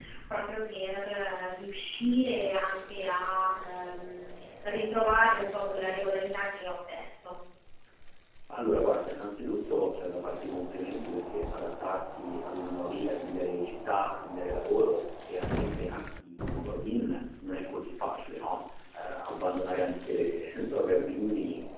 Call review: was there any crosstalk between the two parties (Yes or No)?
No